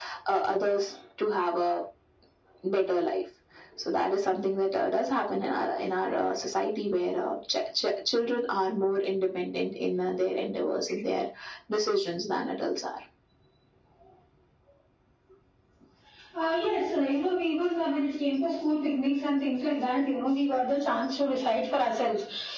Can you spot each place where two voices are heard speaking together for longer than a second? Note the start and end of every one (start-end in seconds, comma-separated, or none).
none